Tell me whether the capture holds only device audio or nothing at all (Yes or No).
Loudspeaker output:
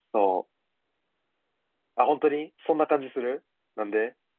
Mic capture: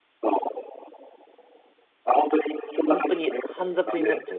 No